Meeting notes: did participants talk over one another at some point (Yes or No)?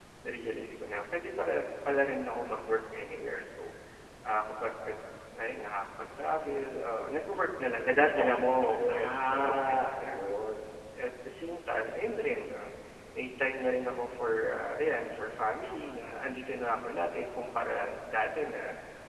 Yes